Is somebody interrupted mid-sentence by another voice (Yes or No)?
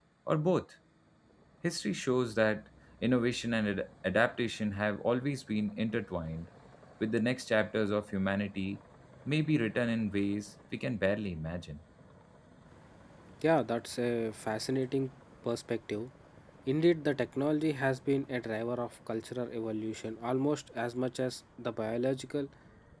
No